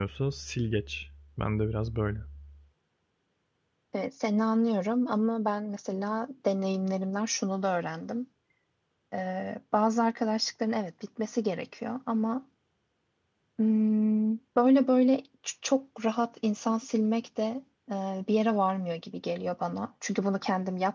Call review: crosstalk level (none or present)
none